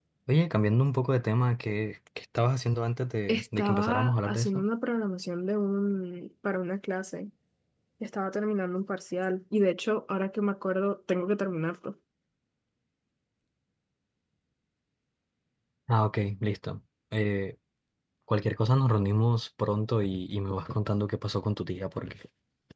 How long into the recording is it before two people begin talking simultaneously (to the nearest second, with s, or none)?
3 s